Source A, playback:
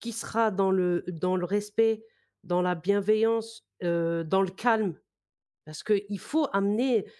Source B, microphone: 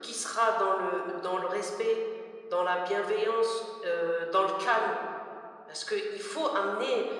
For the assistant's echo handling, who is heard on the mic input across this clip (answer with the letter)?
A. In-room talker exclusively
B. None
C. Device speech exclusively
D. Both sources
C